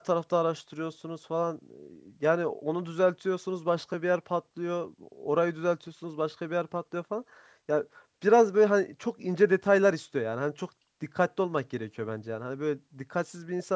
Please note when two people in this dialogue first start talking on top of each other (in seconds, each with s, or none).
none